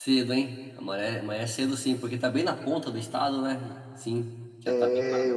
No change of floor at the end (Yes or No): No